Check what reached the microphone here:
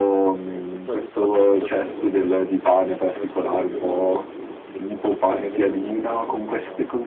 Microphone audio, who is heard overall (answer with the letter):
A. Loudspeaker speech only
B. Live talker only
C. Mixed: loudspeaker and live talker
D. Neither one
C